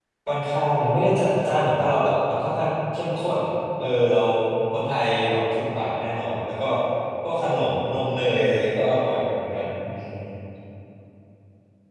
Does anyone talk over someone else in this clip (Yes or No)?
No